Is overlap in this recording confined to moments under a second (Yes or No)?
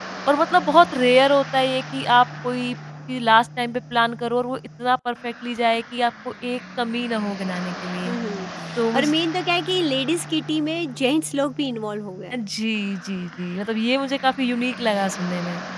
Yes